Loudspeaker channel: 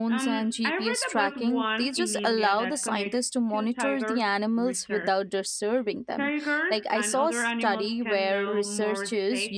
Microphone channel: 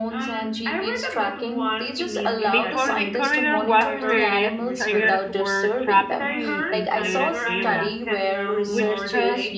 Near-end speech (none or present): present